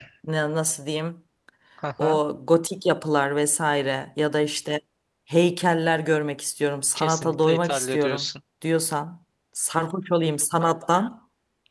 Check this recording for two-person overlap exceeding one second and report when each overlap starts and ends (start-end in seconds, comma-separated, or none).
7.0-8.3